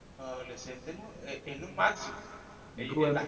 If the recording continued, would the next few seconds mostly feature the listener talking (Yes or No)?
No